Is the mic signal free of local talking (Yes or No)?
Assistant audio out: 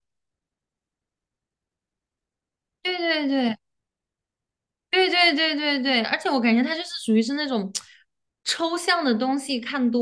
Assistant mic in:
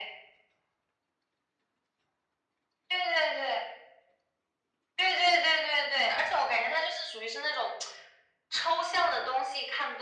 Yes